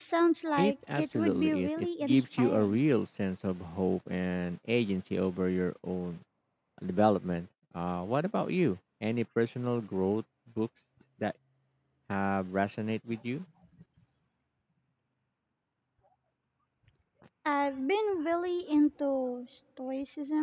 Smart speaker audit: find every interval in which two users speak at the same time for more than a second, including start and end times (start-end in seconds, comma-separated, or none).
0.6-2.8